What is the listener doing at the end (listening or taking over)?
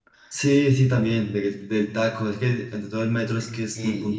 taking over